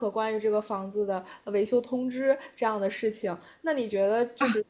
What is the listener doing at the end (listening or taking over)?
listening